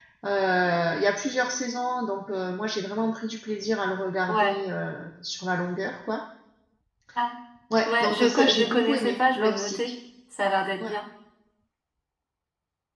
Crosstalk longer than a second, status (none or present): present